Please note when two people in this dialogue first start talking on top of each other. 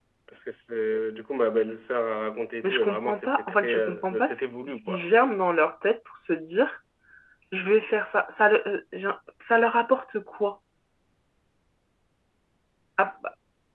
2.6 s

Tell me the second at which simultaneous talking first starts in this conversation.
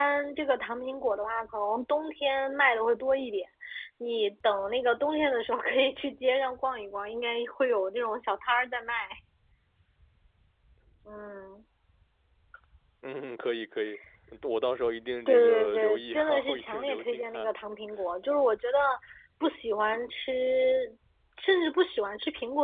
15.3 s

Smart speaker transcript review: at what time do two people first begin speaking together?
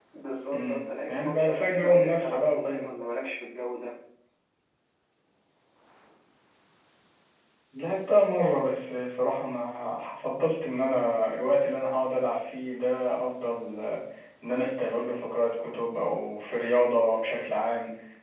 0.5 s

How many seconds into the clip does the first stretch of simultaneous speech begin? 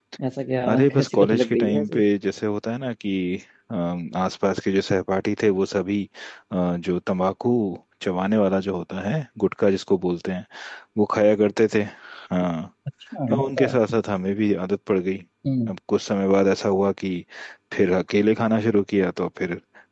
0.7 s

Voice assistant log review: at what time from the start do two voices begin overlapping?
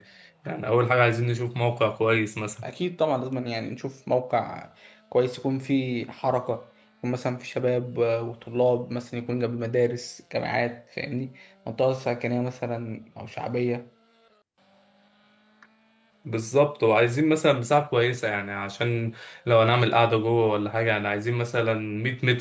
none

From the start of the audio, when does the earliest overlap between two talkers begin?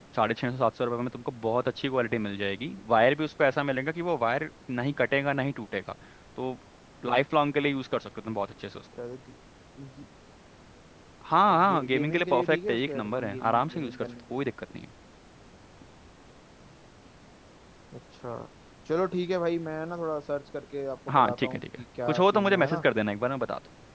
11.5 s

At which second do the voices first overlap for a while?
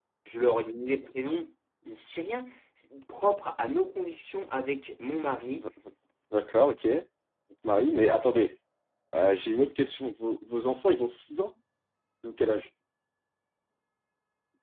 none

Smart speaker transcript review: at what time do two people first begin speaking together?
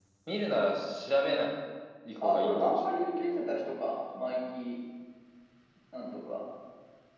2.2 s

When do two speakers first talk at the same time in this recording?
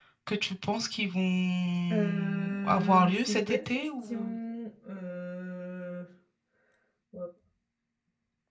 1.9 s

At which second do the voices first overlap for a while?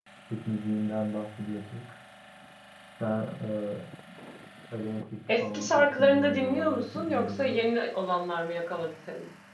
5.4 s

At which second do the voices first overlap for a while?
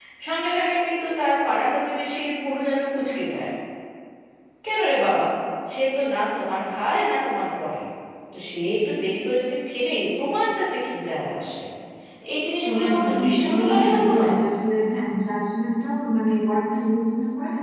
12.7 s

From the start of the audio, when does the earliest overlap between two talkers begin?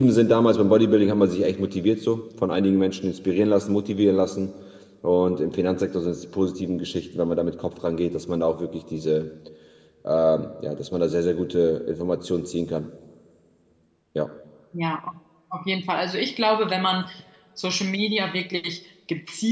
none

